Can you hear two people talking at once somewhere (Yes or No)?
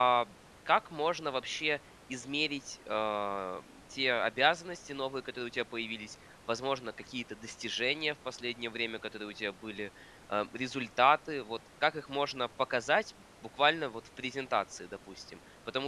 No